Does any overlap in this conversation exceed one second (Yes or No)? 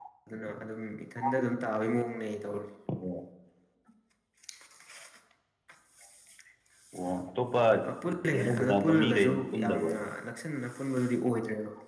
Yes